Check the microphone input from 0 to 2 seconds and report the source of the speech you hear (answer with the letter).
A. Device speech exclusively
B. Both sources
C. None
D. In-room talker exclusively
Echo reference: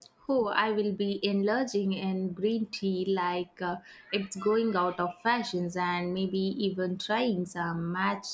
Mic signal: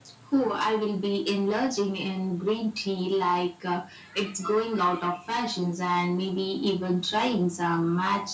A